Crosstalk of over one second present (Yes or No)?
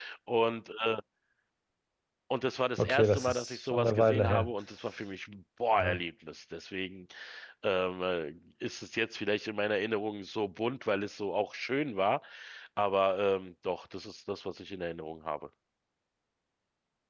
Yes